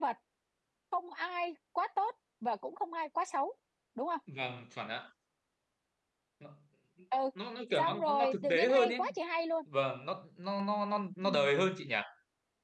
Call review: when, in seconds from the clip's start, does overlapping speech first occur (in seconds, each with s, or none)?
7.8 s